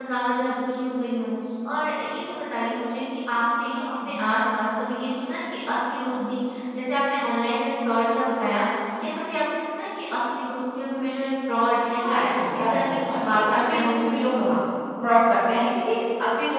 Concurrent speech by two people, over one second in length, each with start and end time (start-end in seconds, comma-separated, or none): 12.0-14.4